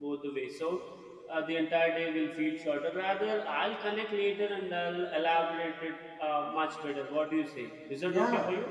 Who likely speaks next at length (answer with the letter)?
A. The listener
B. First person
A